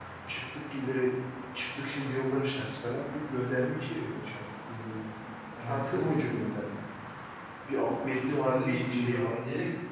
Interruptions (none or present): present